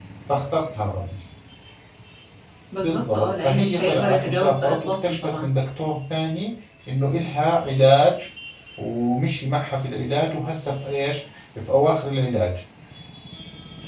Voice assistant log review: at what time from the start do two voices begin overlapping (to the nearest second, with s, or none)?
3 s